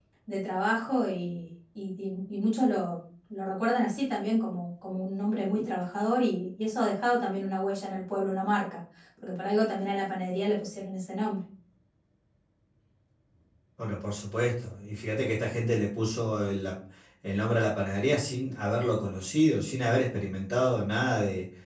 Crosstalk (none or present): none